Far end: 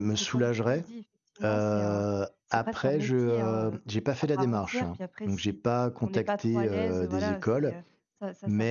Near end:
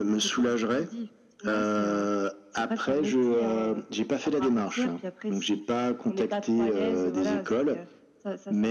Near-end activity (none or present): none